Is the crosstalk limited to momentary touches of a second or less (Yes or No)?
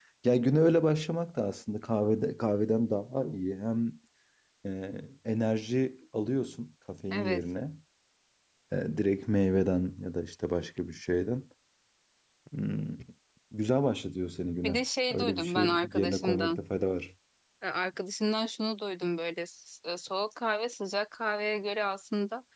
No